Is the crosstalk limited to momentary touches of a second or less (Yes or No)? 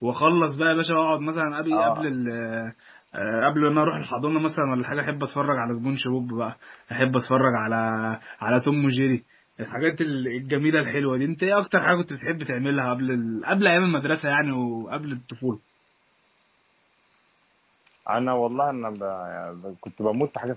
Yes